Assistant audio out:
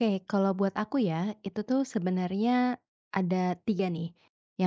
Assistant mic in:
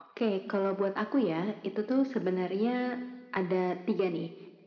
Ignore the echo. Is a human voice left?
No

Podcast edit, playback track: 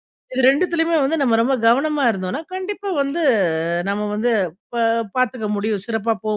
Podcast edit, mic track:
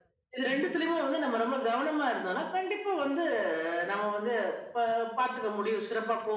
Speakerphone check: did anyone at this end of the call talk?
Yes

